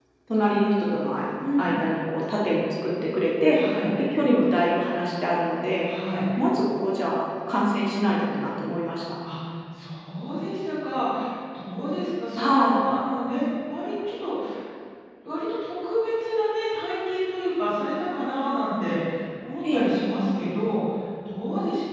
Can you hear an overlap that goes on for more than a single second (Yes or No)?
No